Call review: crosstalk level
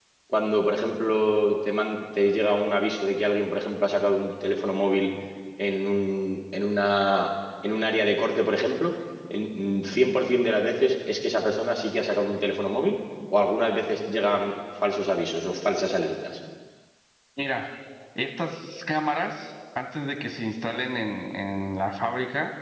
none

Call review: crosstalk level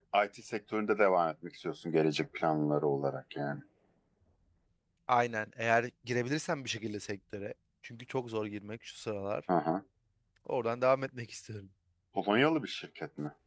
none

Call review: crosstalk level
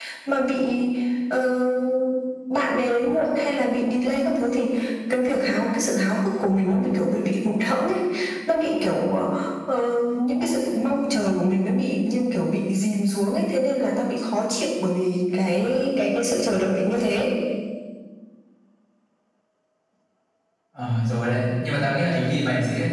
none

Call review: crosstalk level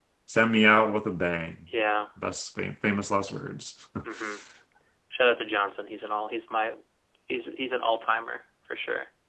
none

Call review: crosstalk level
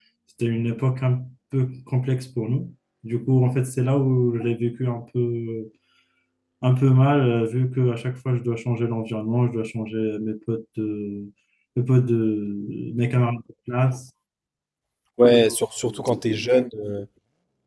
none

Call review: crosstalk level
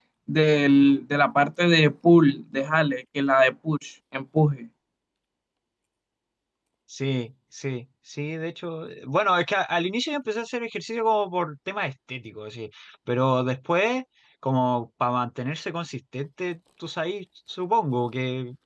none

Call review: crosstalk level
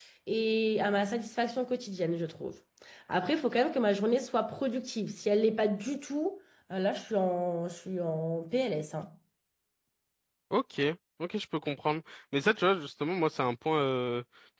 none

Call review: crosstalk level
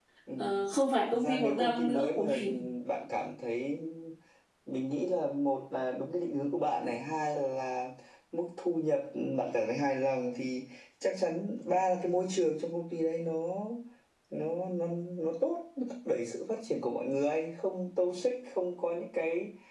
present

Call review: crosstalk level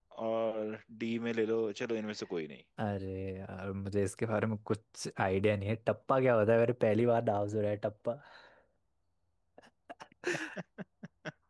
none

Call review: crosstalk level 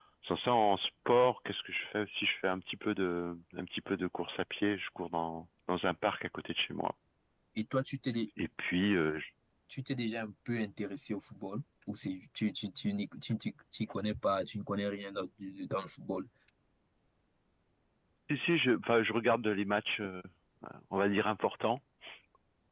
none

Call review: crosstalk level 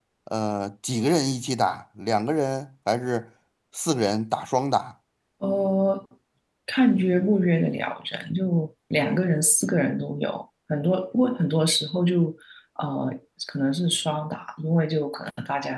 none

